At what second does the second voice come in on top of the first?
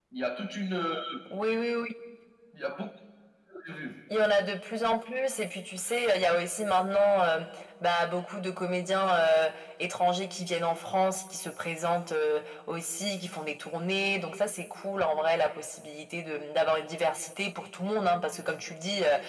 none

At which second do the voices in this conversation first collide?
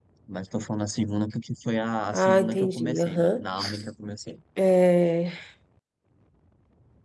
2.1 s

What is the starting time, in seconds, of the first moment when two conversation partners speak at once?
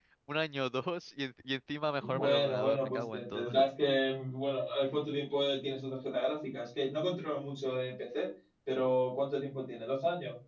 2.0 s

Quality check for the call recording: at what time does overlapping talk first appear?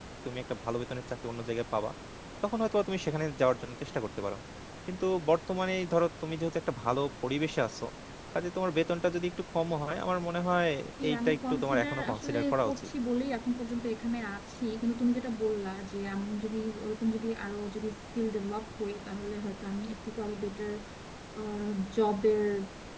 11.1 s

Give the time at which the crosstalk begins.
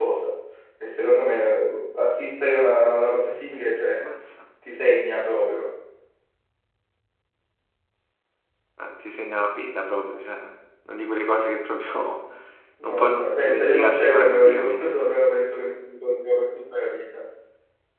12.8 s

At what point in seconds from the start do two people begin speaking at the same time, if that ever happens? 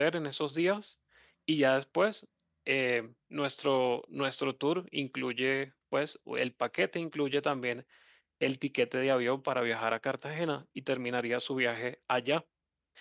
none

